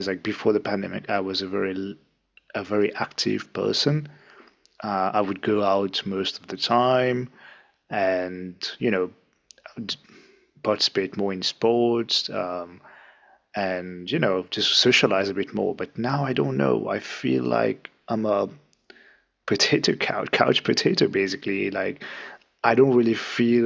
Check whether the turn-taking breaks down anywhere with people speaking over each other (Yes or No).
No